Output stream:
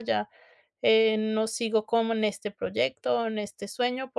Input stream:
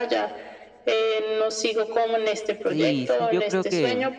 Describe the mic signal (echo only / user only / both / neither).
both